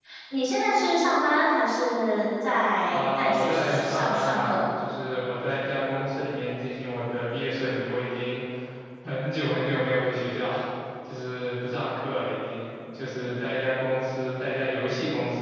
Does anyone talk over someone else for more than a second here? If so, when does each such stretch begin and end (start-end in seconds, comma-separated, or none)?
2.9-4.6